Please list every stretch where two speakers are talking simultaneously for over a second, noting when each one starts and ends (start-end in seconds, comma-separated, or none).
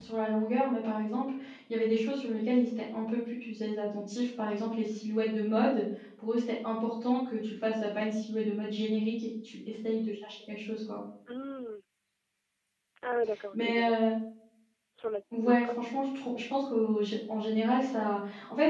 none